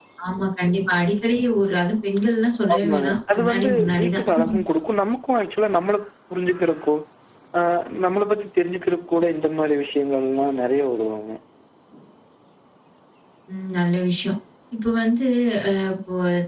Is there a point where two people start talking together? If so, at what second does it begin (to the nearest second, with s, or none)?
3 s